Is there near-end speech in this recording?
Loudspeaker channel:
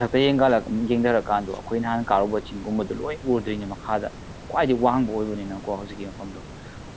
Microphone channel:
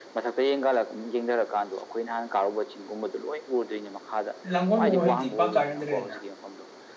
Yes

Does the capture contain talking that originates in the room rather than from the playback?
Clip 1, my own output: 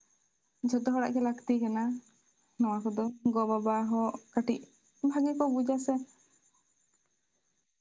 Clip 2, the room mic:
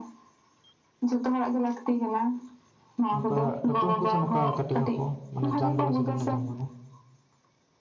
Yes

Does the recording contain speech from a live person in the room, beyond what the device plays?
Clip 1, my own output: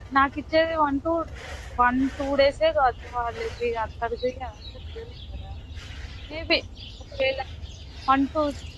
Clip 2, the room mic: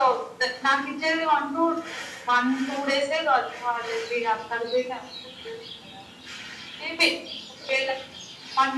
No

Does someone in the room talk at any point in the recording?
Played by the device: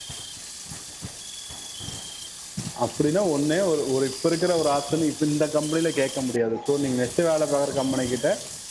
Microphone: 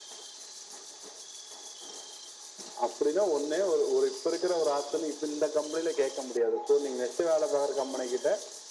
No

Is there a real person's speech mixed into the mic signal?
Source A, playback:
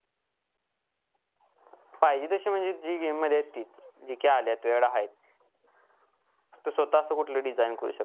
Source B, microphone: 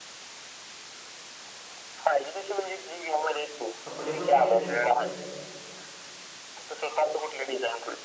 Yes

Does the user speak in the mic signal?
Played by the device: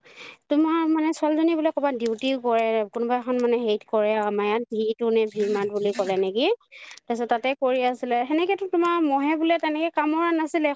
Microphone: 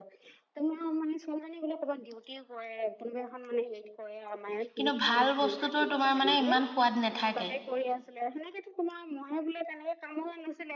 Yes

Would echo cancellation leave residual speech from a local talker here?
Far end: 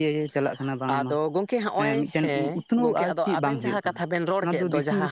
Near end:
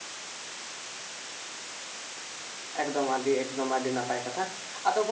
Yes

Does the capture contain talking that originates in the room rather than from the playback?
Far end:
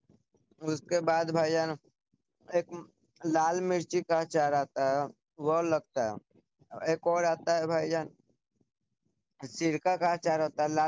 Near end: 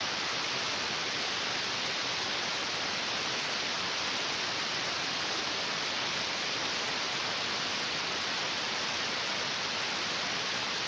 No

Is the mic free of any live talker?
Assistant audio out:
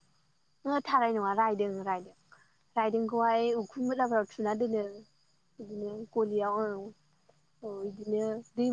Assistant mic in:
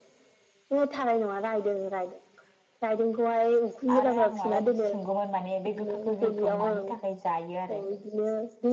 No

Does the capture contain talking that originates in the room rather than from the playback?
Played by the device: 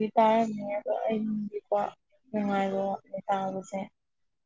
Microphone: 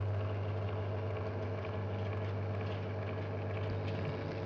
No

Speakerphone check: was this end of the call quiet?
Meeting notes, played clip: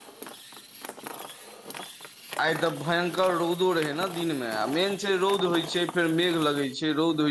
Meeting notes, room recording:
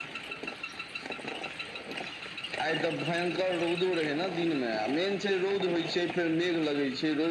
Yes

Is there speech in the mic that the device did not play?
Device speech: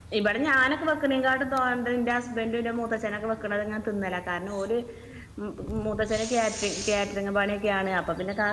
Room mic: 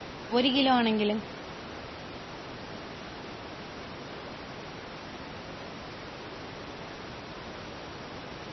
Yes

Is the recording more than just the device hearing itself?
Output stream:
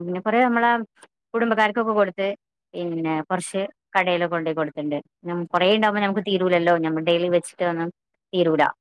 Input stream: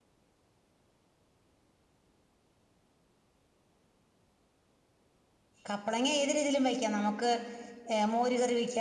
Yes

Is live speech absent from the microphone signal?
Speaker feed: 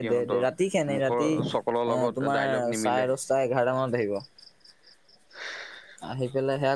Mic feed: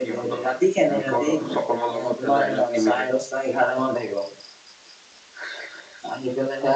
Yes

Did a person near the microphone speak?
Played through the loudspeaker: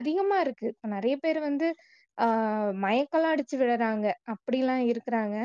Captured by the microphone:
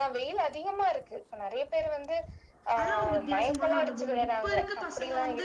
Yes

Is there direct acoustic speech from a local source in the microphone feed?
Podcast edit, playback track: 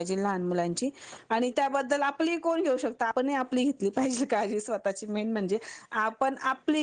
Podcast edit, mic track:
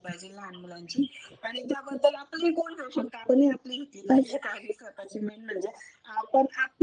No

